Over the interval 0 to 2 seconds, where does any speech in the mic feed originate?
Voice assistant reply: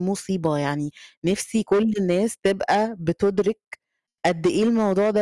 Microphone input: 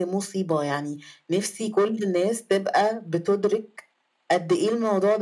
echo only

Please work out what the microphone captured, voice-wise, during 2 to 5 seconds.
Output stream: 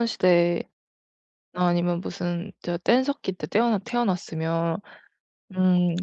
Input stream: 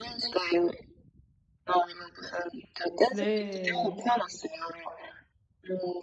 both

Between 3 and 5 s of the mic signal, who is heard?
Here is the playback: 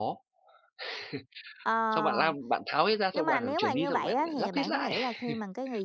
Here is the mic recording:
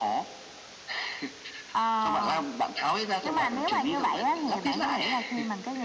echo only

